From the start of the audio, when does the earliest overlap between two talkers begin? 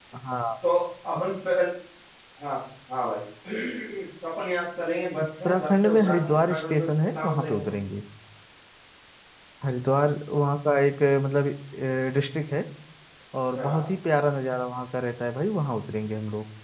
5.4 s

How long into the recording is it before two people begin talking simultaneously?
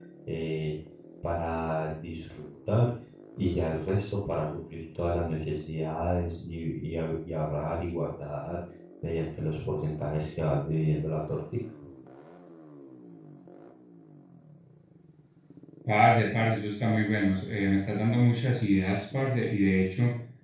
none

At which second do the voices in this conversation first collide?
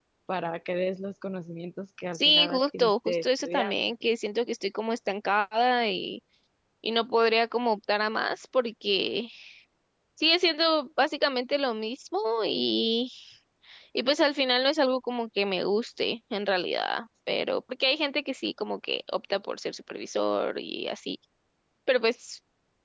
2.1 s

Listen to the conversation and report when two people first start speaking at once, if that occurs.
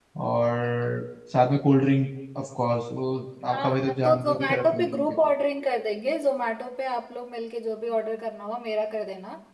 3.5 s

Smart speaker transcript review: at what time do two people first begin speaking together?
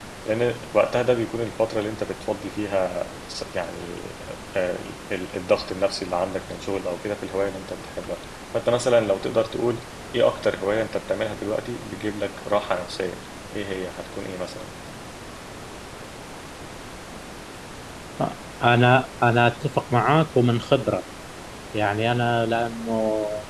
none

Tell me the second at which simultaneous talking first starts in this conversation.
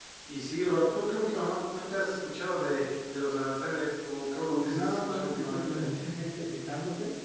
4.5 s

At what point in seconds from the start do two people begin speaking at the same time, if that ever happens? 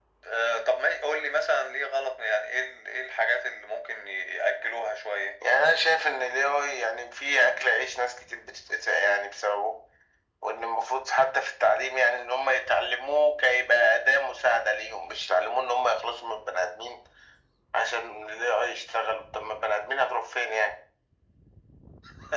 none

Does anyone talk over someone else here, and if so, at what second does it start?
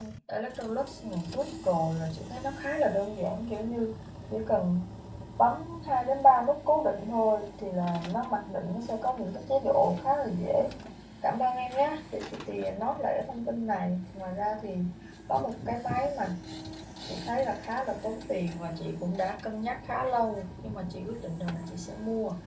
none

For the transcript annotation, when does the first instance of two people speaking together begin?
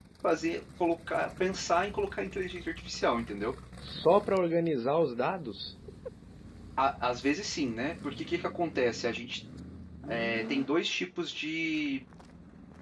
none

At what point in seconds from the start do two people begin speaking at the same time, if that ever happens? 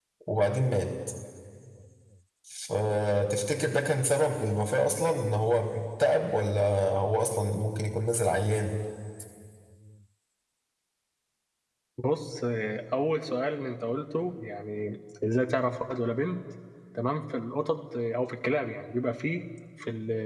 none

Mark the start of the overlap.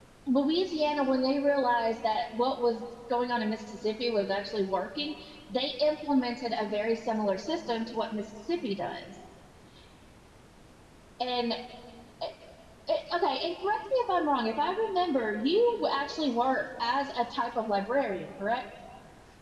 none

